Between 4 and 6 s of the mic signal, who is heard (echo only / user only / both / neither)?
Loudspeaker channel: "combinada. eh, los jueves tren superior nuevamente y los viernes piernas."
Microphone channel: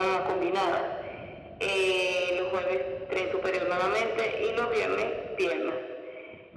echo only